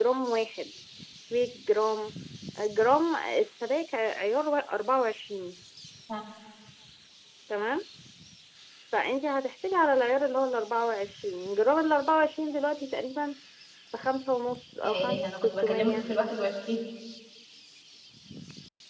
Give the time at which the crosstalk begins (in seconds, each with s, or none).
14.8 s